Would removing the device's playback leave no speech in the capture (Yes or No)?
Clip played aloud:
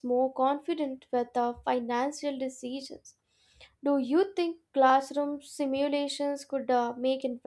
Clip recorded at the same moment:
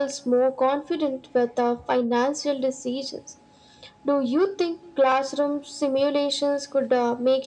Yes